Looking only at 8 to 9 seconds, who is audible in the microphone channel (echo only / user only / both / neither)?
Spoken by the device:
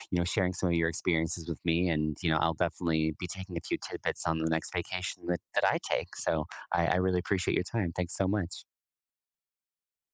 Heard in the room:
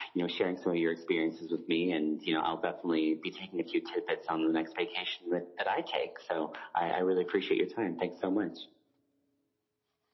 echo only